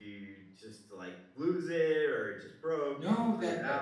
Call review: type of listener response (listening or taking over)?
taking over